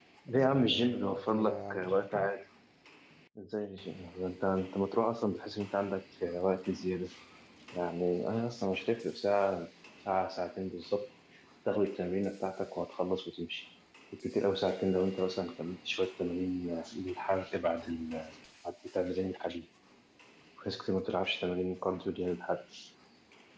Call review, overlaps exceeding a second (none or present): present